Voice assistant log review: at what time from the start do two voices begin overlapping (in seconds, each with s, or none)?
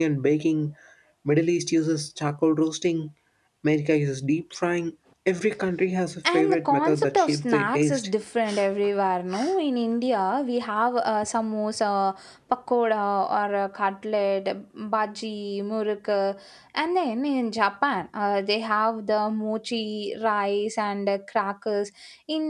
6.2 s